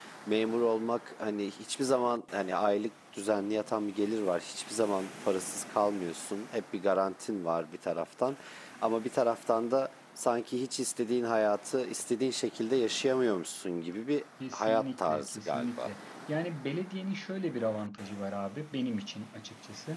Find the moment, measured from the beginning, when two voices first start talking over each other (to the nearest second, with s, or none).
14 s